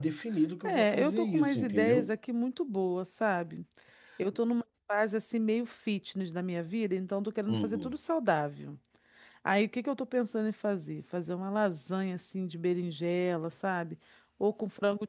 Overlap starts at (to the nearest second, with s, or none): 1 s